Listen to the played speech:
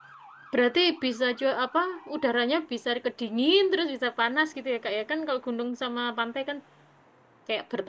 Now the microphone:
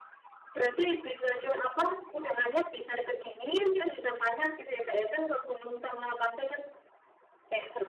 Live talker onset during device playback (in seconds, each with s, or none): none